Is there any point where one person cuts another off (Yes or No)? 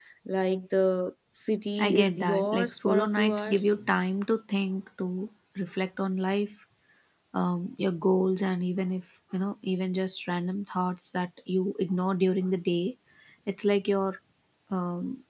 Yes